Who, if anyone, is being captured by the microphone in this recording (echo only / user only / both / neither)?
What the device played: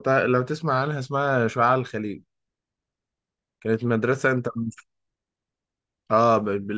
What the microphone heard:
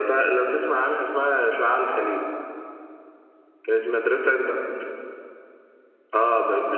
echo only